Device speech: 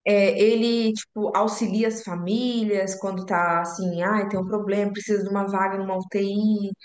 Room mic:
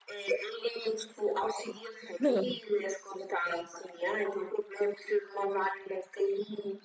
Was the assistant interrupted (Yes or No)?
Yes